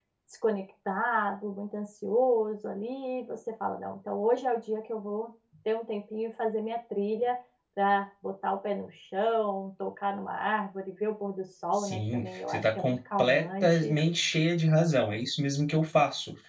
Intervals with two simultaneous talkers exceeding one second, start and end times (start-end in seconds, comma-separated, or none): 11.8-13.9